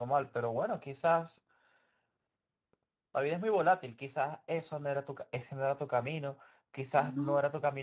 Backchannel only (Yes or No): Yes